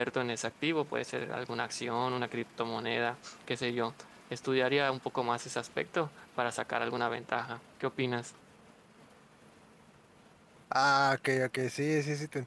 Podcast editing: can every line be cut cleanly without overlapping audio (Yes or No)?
Yes